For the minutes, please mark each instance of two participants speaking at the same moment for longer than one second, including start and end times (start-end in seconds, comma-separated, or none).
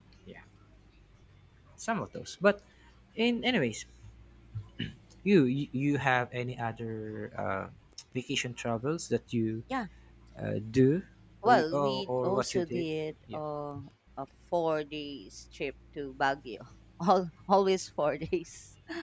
11.4-12.8